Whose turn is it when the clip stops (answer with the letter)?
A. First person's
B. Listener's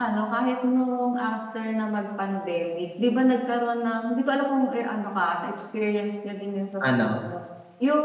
A